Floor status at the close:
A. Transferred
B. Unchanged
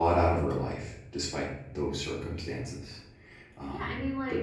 A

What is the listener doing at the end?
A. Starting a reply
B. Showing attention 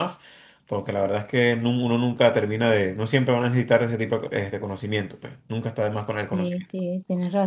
A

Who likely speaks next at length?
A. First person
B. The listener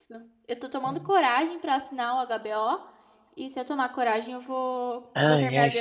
B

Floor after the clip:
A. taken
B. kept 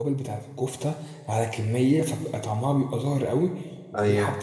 B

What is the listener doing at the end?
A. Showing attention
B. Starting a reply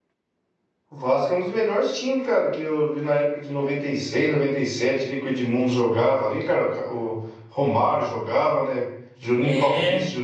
A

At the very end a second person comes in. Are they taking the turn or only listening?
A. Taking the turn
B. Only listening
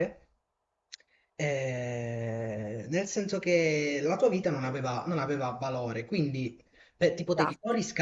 B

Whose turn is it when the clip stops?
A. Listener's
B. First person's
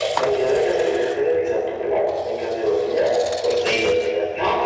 A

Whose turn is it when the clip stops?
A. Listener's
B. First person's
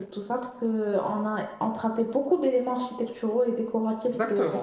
A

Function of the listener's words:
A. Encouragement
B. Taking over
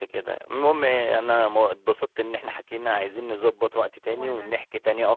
A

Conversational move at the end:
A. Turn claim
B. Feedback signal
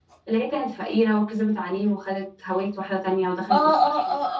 A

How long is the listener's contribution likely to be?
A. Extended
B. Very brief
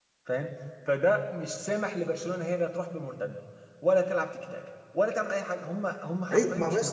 A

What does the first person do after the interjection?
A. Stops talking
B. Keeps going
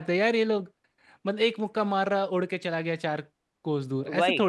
A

